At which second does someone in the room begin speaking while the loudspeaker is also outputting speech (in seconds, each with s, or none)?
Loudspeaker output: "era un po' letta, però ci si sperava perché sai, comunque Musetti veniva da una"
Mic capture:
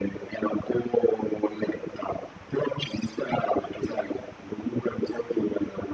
none